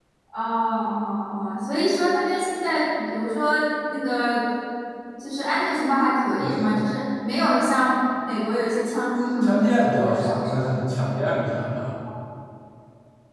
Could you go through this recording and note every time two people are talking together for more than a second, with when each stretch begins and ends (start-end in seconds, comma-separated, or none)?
9.4-10.7